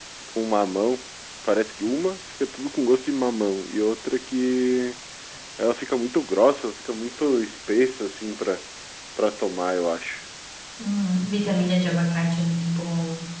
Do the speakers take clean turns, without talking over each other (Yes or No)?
Yes